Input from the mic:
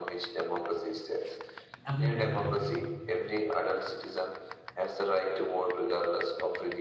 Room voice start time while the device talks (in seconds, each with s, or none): 1.9 s